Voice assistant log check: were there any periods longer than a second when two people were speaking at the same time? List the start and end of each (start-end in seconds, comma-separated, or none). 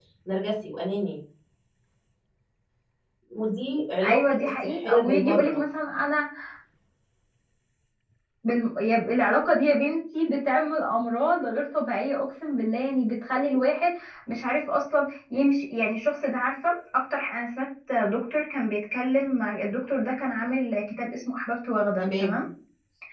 4.0-5.6